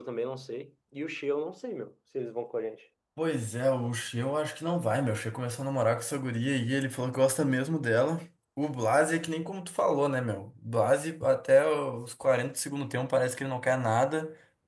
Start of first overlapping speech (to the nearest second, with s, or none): none